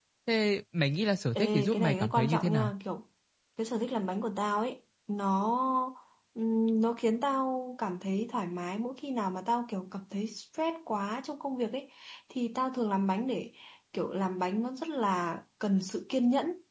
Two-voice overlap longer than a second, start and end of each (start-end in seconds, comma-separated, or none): 1.4-2.7